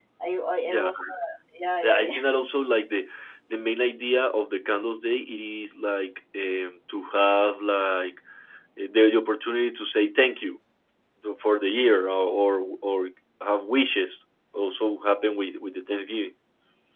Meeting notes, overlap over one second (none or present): none